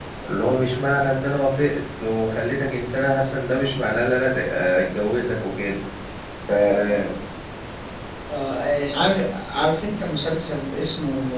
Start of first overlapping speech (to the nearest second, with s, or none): none